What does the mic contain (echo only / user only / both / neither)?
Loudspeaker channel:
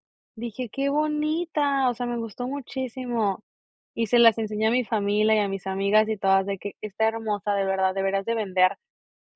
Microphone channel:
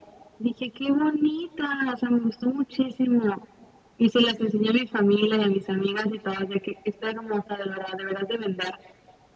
echo only